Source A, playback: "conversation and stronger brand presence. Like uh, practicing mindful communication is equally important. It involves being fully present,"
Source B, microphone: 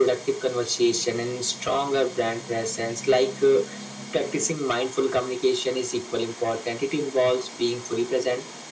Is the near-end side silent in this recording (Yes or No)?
Yes